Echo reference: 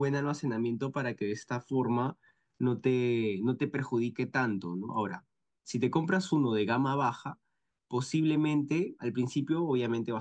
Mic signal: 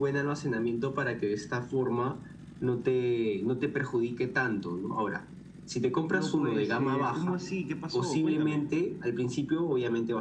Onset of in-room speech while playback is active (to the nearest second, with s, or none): 6 s